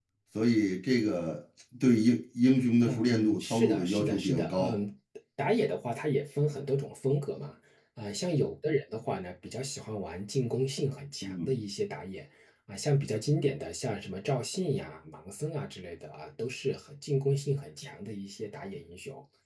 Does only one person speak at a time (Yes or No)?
No